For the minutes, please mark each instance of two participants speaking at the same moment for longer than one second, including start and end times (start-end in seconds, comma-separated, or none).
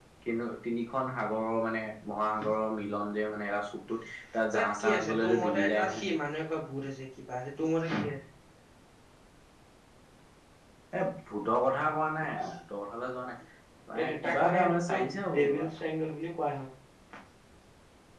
4.6-6.0, 14.0-15.7